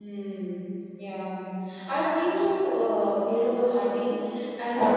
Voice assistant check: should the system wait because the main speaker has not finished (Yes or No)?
Yes